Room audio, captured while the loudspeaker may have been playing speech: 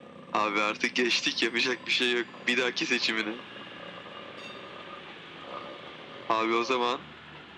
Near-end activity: none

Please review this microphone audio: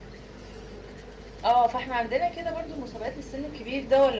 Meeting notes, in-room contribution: present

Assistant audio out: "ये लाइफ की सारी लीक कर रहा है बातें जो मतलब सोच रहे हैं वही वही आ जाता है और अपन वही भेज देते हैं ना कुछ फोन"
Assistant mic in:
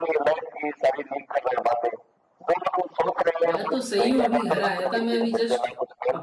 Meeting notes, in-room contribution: present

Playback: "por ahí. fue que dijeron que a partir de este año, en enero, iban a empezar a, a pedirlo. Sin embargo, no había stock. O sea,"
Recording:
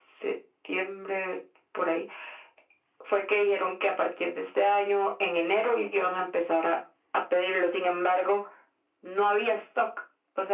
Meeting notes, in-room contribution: none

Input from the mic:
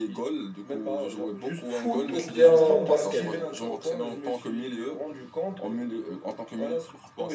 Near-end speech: present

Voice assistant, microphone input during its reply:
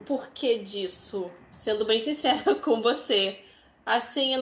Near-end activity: present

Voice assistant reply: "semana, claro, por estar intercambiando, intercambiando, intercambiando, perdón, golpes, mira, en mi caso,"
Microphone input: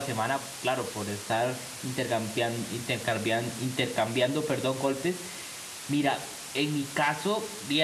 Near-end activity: none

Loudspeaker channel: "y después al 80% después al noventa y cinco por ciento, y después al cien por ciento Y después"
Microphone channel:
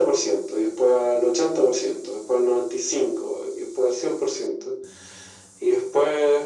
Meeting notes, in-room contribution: none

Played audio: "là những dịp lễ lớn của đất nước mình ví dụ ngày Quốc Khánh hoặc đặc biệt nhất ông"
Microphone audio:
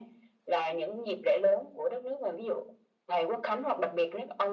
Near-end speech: none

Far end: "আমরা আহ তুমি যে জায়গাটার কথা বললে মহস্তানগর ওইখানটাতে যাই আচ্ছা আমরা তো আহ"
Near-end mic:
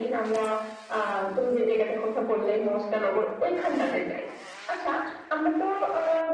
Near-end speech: none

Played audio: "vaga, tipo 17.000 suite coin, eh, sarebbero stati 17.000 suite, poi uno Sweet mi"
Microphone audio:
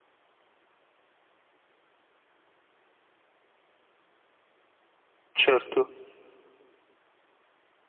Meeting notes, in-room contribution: present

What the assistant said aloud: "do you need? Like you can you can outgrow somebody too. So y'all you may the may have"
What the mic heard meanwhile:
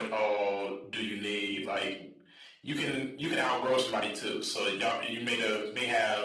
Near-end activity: none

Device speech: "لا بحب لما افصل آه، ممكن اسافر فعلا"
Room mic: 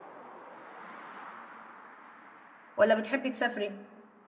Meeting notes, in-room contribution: present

